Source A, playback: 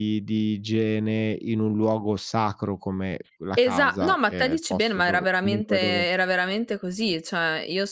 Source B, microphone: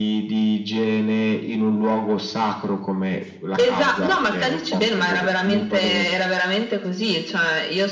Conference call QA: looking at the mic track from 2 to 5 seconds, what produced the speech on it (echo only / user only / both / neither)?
echo only